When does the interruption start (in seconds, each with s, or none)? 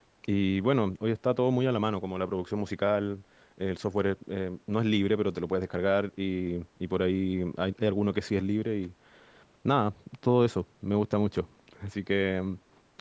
none